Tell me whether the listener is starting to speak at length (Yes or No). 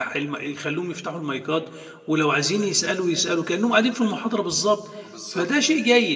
No